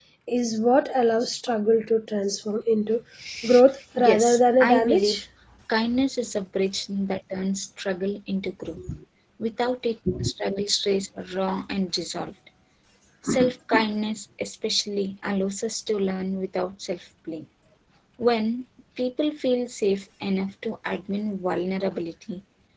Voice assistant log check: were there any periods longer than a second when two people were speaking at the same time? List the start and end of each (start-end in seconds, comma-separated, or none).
4.0-5.2